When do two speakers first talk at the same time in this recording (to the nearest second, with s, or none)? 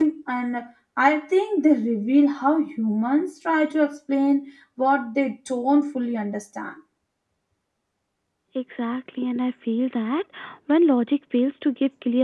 none